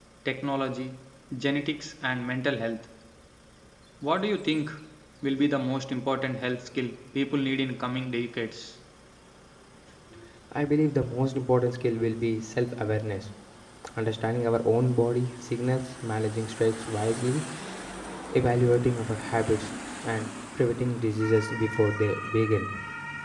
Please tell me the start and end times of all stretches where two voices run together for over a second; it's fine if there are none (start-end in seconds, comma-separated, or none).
none